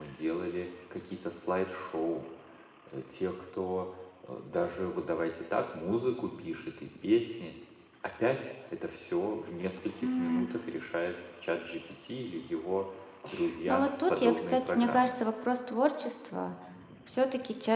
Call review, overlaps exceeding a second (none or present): present